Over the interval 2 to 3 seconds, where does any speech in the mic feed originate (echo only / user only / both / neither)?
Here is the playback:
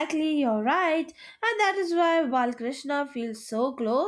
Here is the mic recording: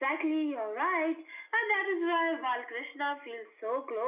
echo only